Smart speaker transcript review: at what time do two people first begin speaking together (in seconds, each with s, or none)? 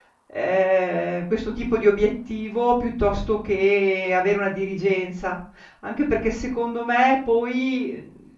none